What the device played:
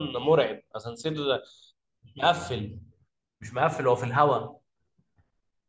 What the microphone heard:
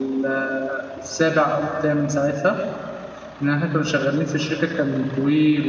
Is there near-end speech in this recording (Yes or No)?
Yes